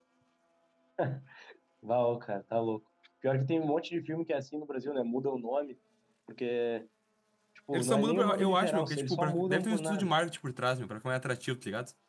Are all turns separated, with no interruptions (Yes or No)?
No